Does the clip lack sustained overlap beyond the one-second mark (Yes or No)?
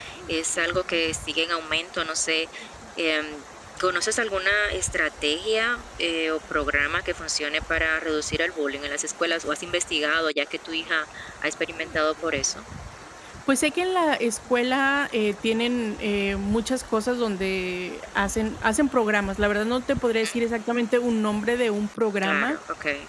Yes